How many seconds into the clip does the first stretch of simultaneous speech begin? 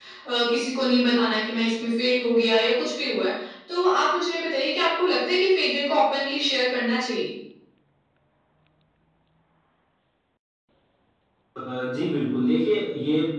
none

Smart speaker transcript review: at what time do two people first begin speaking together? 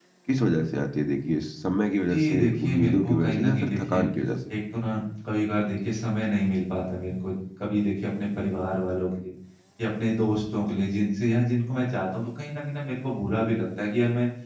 2.1 s

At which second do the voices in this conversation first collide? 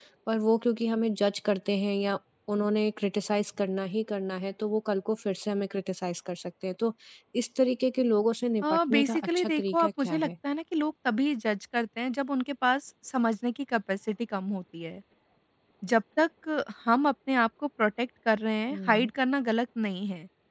8.6 s

